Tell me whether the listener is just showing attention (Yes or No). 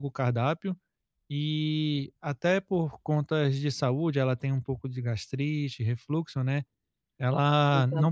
Yes